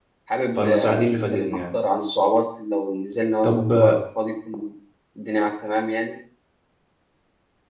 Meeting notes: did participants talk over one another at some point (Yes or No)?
Yes